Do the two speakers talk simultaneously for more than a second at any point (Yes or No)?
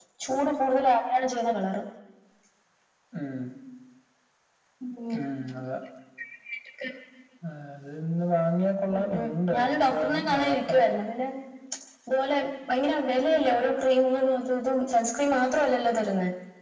Yes